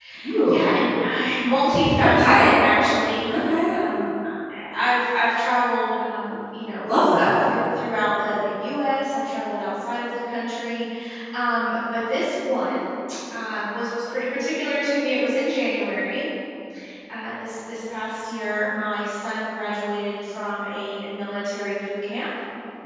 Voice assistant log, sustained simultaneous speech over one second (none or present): none